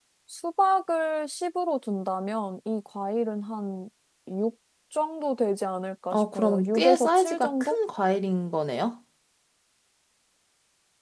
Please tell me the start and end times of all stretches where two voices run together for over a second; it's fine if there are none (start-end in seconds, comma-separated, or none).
6.1-7.8